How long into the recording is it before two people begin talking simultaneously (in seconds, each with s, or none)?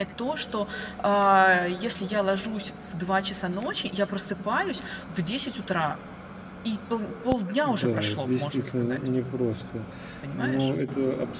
7.6 s